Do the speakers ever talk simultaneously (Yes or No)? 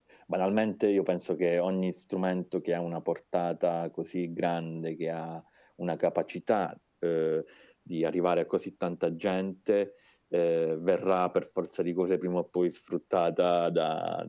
No